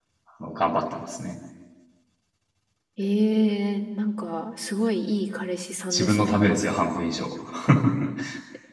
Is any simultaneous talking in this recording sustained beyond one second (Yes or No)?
No